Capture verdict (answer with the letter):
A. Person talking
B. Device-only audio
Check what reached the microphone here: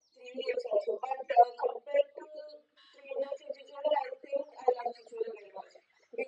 B